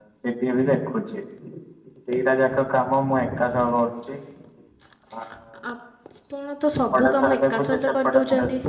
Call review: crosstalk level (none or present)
present